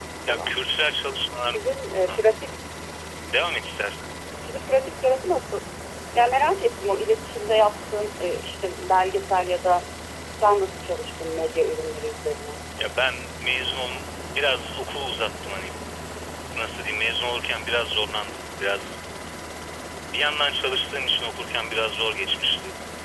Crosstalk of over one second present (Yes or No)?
No